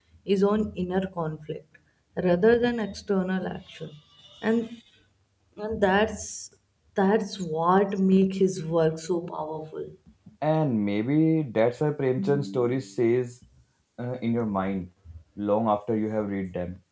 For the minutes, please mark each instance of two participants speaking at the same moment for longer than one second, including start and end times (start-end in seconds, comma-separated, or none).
none